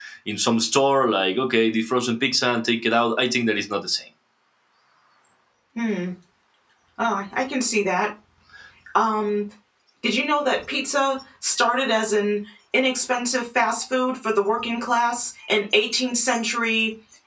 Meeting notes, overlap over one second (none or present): none